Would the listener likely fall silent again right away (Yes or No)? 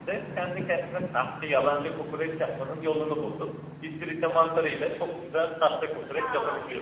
No